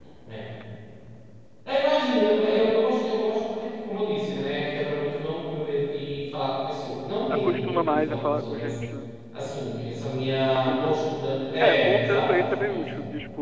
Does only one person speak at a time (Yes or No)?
No